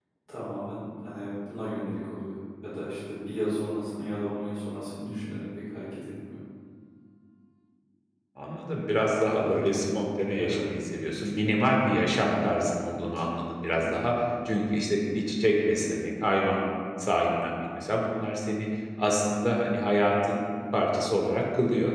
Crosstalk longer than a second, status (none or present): none